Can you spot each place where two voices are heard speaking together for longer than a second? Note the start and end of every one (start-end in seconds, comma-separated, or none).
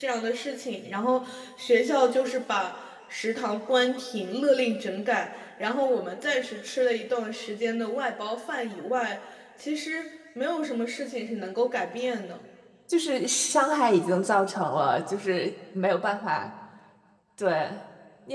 none